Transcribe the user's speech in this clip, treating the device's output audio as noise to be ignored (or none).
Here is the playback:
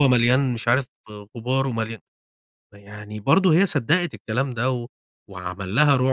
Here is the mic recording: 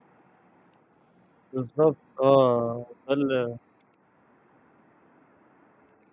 بالضبط آه، تخل